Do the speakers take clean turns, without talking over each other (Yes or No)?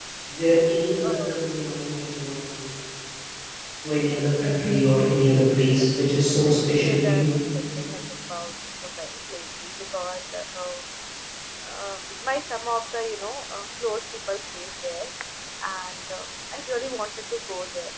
No